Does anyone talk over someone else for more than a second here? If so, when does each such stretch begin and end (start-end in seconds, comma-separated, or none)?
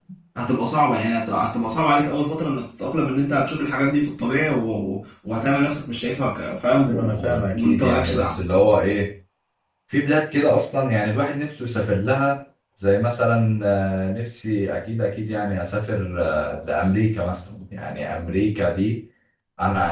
6.9-8.4